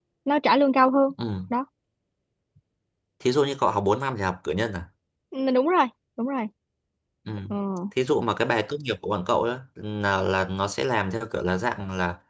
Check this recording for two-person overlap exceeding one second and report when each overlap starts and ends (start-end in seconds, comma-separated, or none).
none